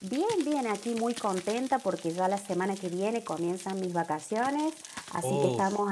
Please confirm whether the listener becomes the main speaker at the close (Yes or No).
No